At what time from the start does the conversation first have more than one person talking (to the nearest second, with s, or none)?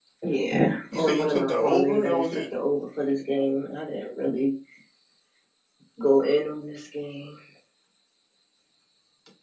1 s